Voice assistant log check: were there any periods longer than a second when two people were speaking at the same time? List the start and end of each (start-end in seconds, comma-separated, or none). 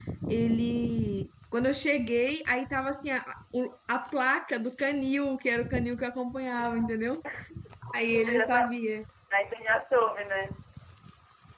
none